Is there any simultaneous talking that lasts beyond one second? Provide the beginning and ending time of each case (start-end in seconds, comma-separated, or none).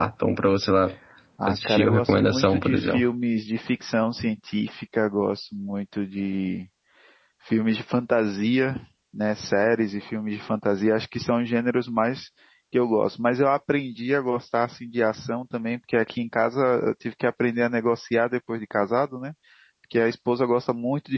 1.5-3.0